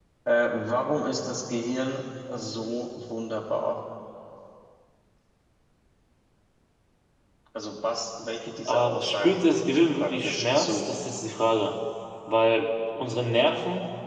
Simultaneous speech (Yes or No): Yes